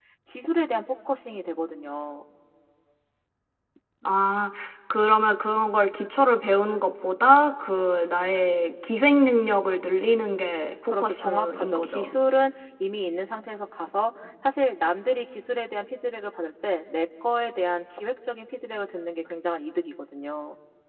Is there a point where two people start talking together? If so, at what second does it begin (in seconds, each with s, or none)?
10.8 s